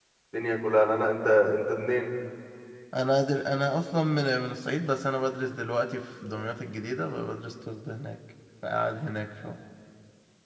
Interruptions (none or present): none